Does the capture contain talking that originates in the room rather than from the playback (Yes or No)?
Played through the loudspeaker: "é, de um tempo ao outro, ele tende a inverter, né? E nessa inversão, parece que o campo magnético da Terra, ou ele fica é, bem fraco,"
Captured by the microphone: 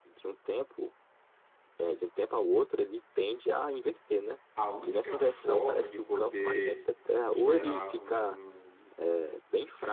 Yes